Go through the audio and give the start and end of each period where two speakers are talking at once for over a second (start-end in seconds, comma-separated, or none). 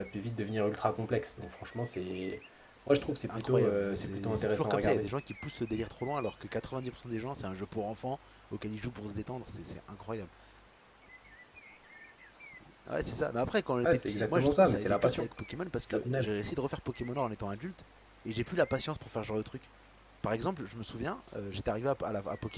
2.9-5.1, 13.8-15.3